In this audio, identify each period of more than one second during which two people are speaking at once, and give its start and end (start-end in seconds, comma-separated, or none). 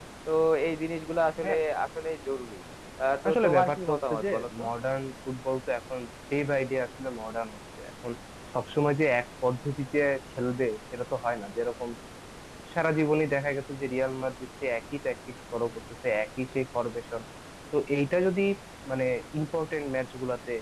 3.3-4.6